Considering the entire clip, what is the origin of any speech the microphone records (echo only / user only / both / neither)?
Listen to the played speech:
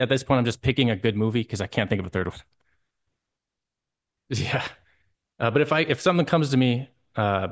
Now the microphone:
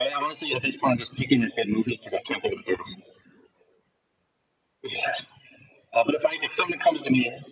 echo only